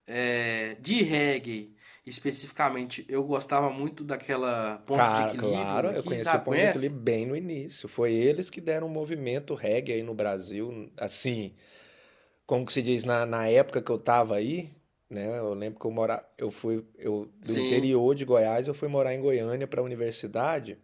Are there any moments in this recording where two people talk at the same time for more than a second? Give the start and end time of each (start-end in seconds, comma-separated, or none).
4.9-6.9